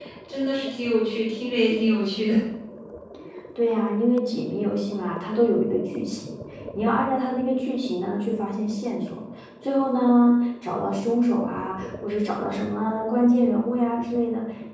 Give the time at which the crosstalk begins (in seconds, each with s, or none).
none